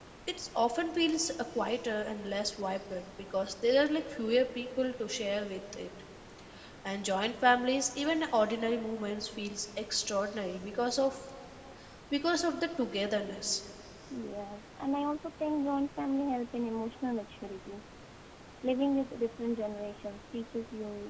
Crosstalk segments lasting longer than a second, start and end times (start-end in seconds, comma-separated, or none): none